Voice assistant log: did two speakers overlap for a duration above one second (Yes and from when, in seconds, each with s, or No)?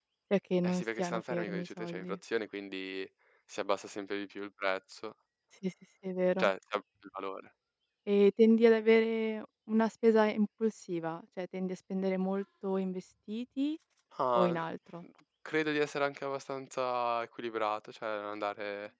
Yes, from 0.6 s